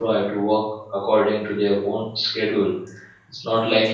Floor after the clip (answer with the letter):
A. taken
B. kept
B